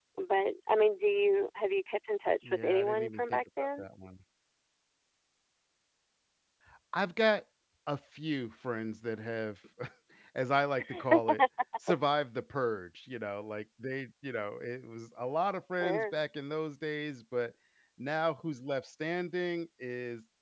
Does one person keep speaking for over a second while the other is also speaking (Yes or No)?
Yes